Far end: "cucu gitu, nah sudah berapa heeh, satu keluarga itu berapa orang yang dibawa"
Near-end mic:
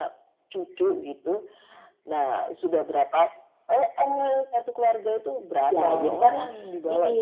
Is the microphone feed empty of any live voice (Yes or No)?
No